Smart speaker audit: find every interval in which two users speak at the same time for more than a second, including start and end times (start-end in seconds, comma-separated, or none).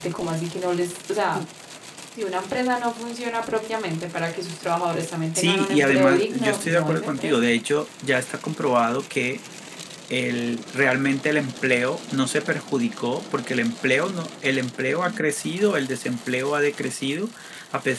5.3-7.5